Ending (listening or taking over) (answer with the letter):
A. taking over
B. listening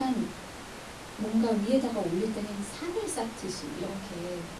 B